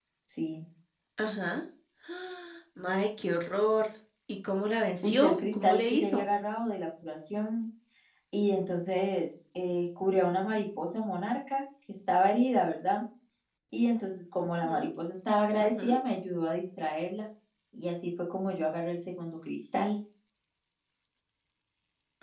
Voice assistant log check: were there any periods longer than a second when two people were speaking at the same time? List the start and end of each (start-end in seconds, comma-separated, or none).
5.0-6.2